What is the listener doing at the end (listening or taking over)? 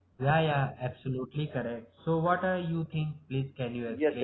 taking over